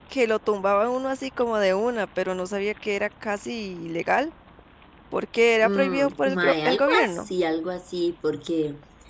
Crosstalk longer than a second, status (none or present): present